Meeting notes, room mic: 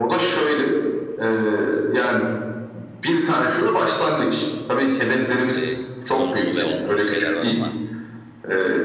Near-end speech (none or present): present